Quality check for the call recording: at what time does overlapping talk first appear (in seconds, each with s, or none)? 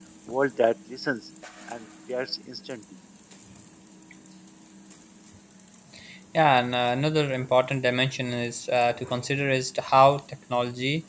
none